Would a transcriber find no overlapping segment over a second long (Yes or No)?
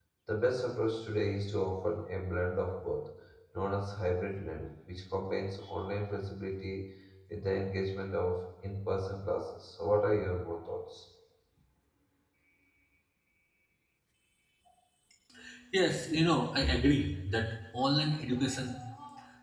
Yes